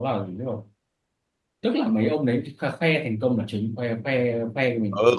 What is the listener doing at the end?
taking over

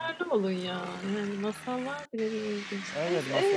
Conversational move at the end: taking over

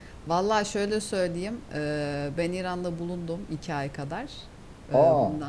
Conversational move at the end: listening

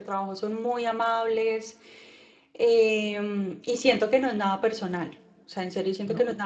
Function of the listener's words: listening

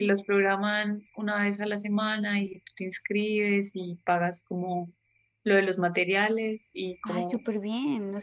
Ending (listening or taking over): taking over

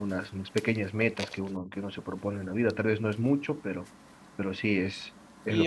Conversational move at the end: taking over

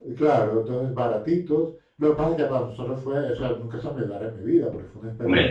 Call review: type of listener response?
taking over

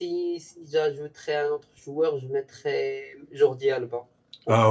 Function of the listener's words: taking over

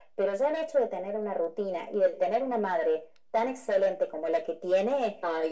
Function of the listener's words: listening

